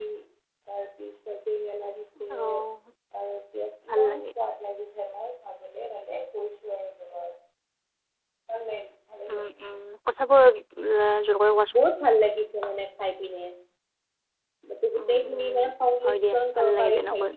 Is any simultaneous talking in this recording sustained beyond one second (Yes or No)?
Yes